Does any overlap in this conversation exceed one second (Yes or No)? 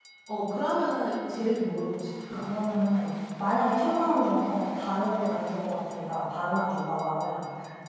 No